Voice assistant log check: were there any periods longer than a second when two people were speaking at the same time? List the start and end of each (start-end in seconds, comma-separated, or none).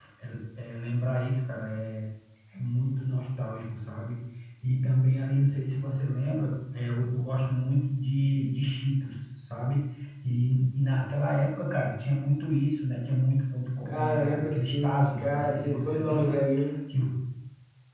13.8-16.4